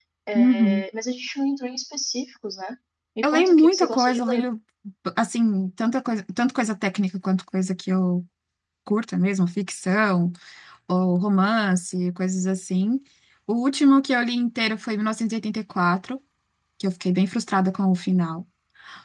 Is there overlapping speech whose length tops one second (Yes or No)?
Yes